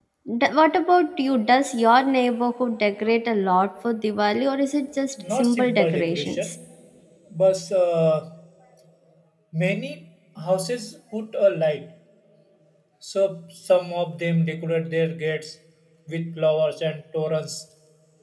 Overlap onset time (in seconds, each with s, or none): 5.2 s